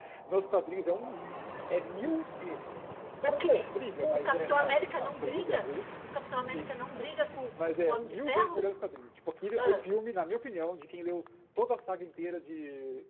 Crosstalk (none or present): present